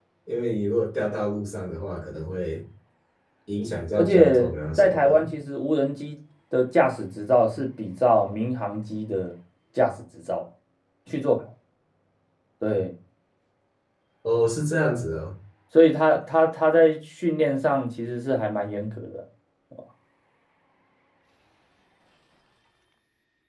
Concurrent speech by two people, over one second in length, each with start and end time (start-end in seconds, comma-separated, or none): 4.0-5.3